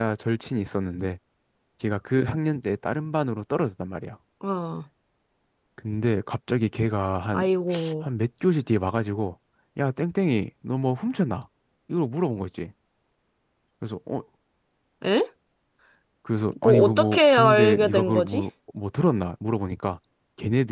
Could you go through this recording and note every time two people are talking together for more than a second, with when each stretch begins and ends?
16.6-18.4

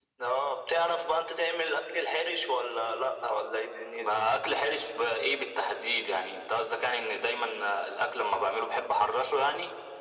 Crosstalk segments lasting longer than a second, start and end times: none

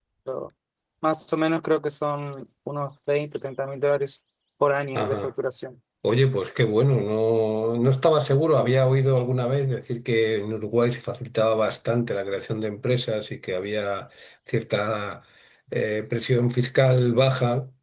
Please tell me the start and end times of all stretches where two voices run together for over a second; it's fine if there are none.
none

